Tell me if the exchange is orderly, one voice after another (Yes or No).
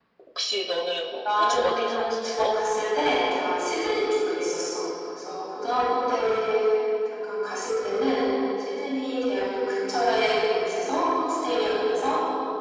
No